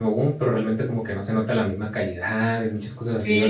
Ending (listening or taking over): taking over